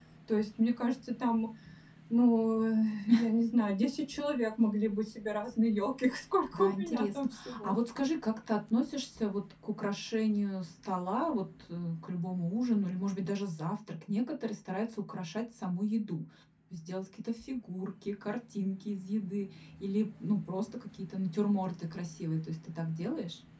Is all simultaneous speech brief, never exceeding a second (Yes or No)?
No